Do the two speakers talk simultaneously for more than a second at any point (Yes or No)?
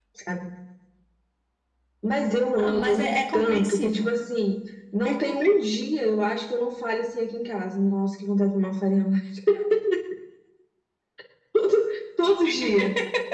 Yes